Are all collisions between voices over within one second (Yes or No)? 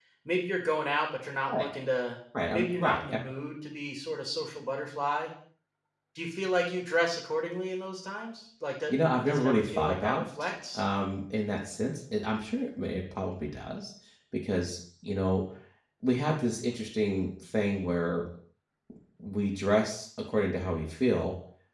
No